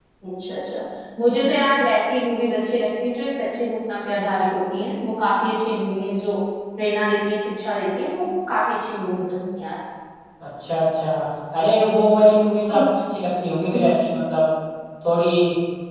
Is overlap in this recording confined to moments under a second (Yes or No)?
Yes